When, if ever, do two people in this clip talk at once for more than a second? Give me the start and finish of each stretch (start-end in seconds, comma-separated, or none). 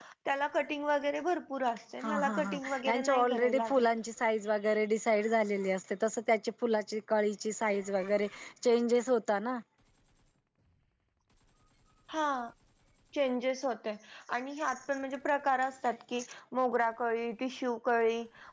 2.0-3.9